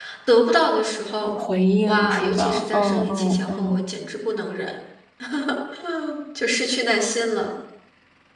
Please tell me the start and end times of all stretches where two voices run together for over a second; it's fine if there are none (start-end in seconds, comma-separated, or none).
1.9-3.8